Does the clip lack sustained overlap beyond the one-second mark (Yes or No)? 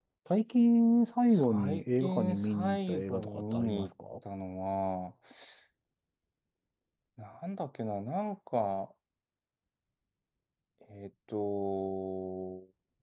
No